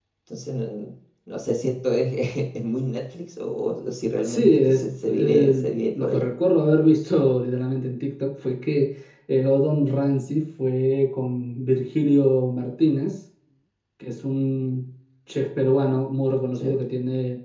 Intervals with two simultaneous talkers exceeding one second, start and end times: 4.2-5.5

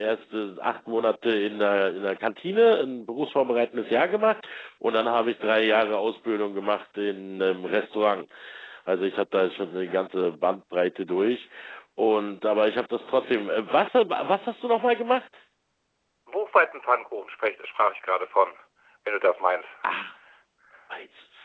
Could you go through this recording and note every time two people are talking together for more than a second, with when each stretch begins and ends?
none

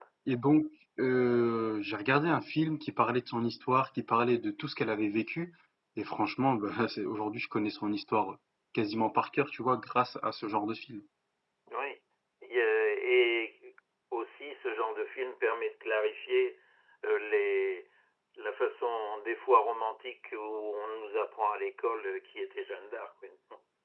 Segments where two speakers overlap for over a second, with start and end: none

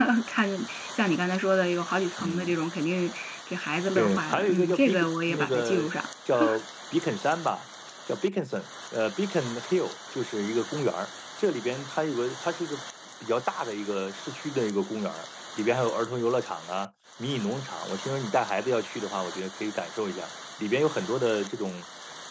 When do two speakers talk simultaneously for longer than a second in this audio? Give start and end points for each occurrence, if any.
4.0-5.9

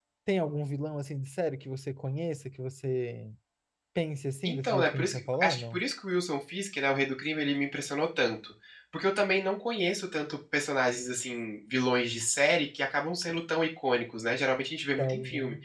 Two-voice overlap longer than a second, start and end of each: 4.4-5.8

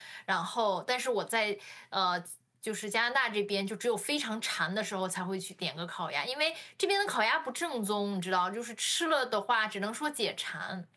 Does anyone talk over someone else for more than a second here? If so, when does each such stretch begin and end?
none

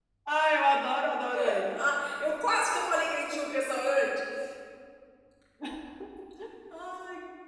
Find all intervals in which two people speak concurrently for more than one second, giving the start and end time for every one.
none

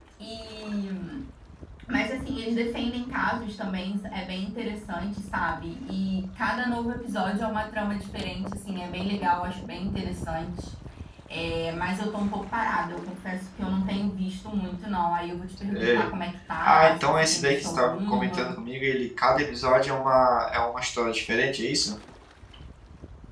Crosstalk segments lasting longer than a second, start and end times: 16.6-18.5

